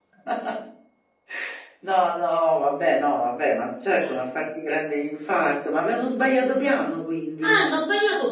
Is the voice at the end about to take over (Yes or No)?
Yes